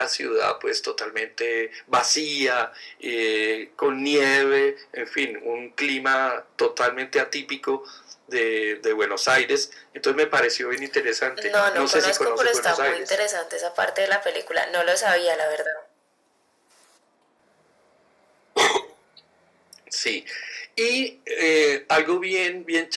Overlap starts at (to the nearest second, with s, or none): 11 s